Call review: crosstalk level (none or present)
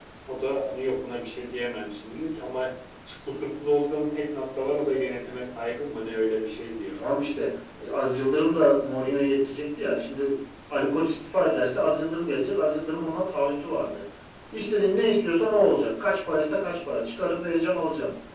none